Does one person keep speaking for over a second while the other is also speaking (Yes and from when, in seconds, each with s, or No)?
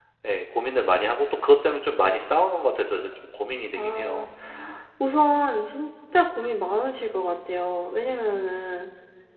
No